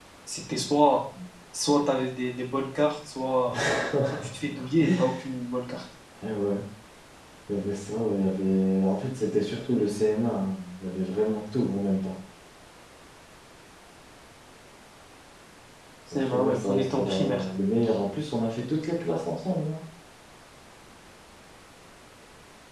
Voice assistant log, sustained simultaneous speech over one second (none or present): present